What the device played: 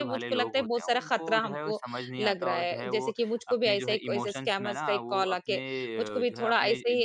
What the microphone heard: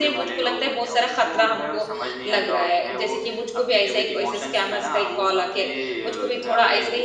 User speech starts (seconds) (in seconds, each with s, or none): none